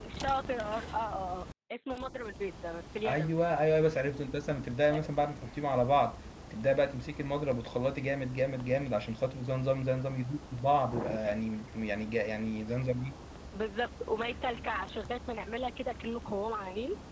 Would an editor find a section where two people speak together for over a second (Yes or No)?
No